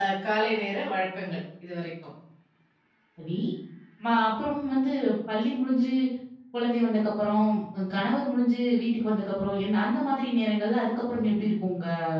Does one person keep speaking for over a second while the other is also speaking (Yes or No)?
No